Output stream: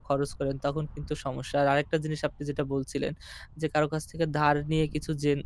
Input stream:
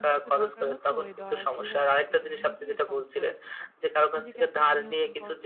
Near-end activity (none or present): present